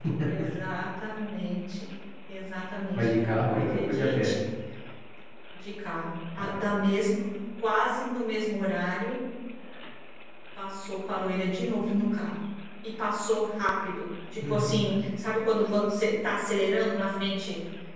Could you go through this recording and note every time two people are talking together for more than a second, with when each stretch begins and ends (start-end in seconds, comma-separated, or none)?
3.0-4.3